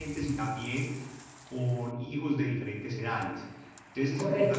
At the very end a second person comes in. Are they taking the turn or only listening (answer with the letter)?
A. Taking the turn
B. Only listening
B